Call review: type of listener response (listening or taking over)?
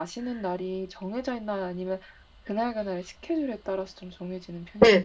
taking over